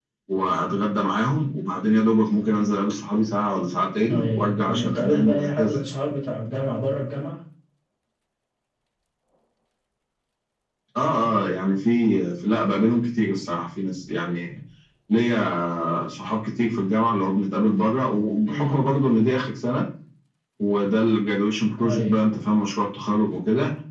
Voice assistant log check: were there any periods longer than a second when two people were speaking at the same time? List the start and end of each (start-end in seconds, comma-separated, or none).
4.0-5.8